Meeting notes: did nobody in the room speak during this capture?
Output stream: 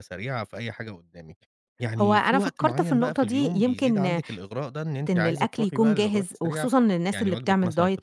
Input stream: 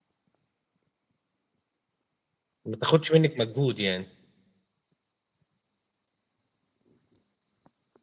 No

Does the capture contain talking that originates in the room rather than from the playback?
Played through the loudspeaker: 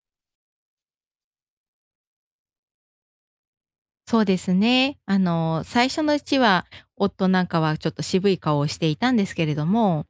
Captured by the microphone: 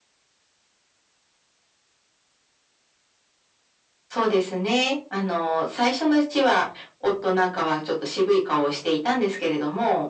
No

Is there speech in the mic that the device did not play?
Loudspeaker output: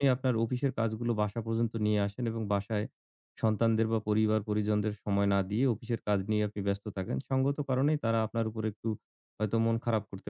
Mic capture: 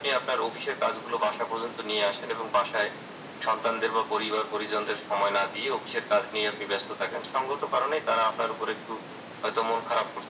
No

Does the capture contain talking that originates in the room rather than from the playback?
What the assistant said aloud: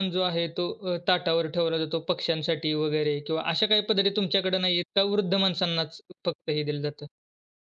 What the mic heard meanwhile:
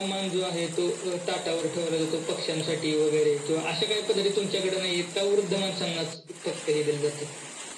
No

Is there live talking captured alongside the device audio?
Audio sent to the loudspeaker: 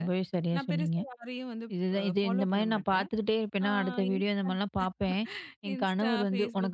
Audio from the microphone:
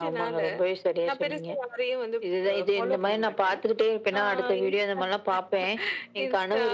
No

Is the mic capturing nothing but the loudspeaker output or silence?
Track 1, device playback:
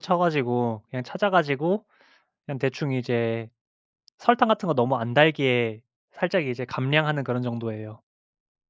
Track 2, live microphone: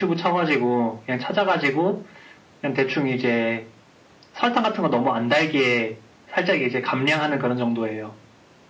Yes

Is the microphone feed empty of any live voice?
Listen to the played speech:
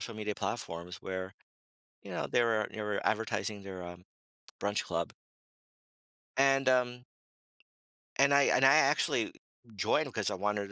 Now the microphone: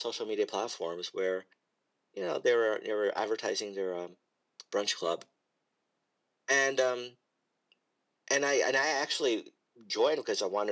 Yes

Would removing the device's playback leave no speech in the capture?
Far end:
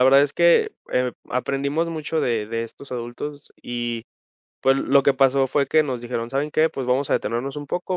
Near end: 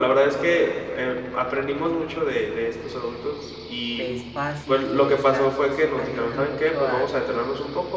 No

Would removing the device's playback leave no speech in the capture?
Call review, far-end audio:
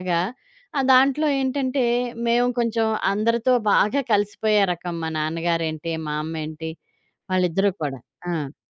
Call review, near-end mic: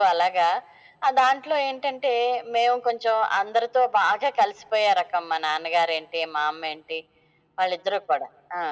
Yes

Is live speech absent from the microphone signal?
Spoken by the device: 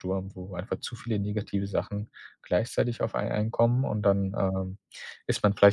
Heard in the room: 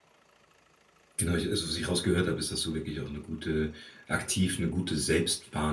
No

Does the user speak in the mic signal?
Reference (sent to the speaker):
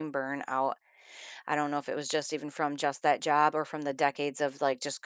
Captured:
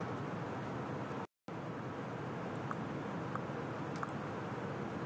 No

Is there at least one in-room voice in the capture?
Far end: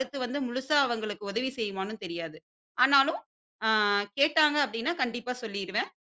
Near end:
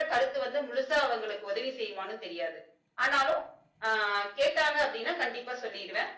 No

